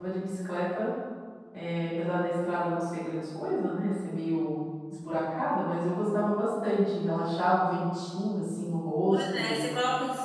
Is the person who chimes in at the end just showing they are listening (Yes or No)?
No